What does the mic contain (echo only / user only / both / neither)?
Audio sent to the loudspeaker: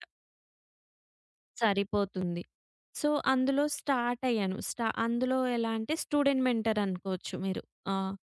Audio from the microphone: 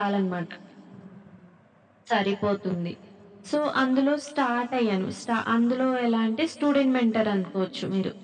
echo only